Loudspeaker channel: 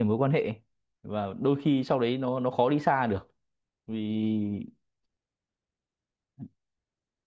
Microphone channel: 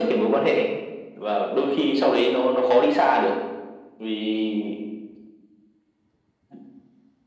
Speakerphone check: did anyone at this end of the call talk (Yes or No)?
No